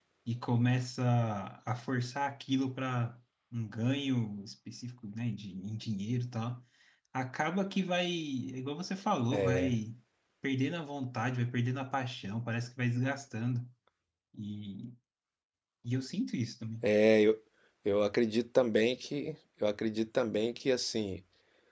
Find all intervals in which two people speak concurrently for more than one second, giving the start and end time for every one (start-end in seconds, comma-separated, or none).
none